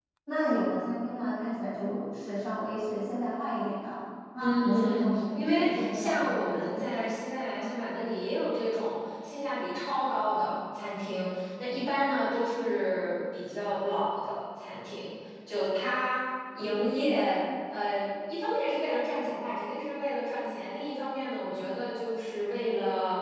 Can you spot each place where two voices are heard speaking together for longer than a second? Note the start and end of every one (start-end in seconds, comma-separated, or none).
4.4-6.7